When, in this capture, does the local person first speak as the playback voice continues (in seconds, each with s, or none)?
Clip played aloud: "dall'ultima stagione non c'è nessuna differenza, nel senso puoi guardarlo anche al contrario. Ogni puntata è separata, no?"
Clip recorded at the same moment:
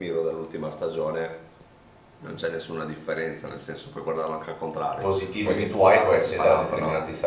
5.0 s